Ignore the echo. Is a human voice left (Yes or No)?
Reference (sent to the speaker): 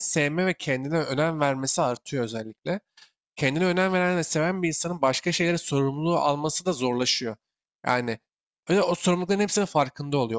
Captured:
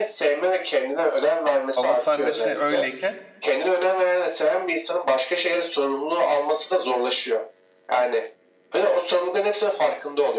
Yes